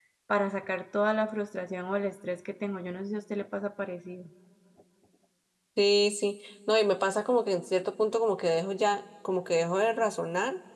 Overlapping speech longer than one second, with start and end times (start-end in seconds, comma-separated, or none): none